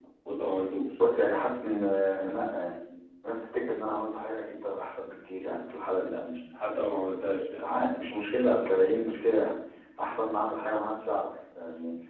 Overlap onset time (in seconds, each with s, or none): none